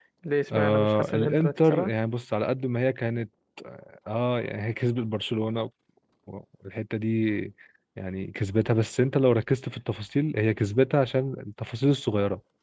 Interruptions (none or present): present